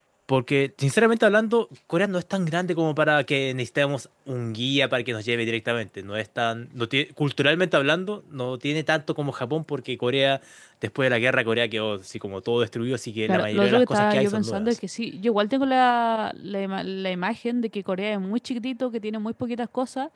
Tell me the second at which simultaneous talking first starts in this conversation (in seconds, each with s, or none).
13.3 s